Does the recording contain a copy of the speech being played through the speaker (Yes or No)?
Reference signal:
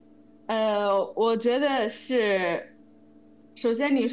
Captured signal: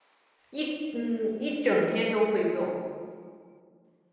No